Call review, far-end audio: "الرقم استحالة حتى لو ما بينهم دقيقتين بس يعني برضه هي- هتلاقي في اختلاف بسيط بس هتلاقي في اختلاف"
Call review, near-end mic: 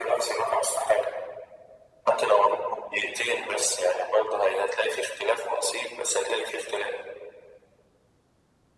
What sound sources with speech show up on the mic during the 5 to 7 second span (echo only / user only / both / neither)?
echo only